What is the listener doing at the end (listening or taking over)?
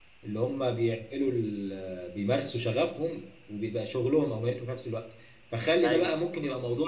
listening